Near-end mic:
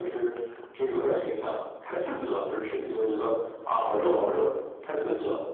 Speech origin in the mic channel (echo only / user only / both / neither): echo only